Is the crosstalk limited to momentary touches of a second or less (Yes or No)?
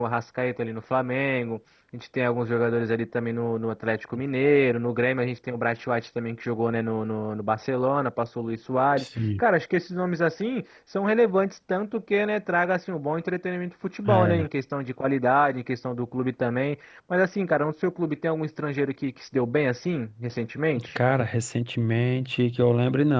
Yes